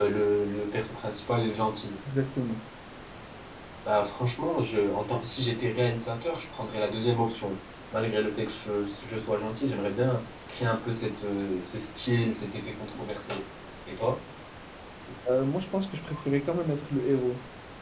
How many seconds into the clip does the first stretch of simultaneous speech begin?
none

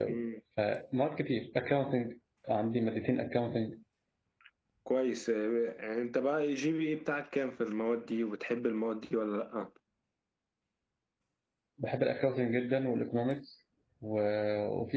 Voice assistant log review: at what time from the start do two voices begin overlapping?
none

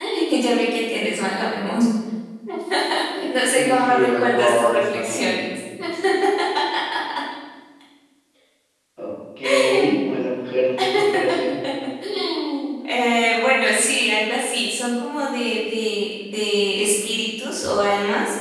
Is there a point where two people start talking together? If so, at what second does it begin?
4 s

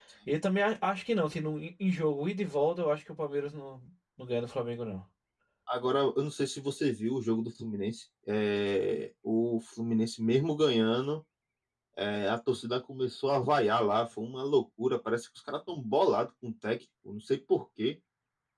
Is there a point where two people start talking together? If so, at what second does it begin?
none

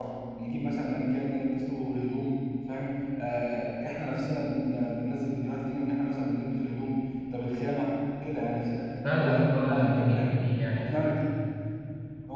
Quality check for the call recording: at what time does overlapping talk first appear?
9 s

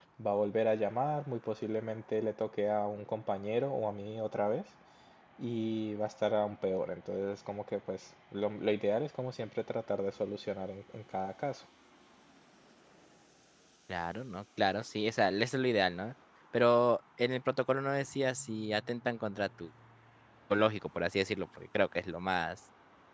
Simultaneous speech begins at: none

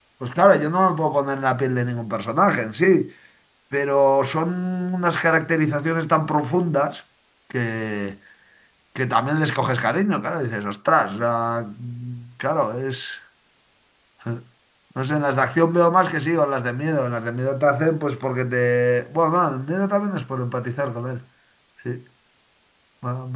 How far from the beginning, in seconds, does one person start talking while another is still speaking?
none

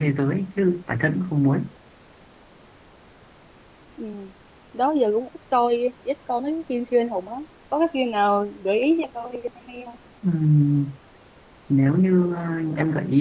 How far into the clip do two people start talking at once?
none

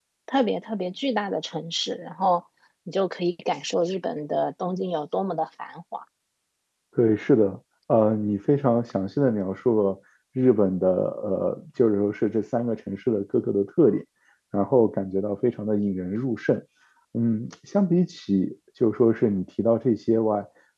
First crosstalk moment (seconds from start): none

